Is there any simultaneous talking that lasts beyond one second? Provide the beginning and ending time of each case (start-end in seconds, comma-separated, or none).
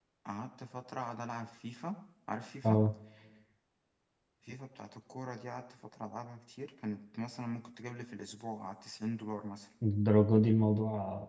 none